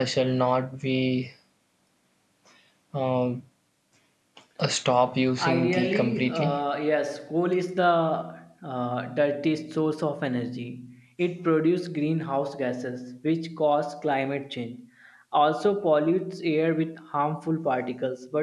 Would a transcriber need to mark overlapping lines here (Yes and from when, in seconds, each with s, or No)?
Yes, from 5.4 s